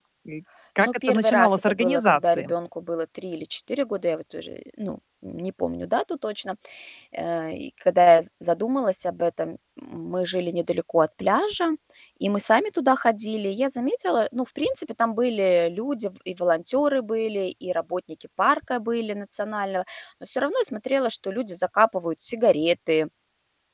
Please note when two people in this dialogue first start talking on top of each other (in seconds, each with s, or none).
0.8 s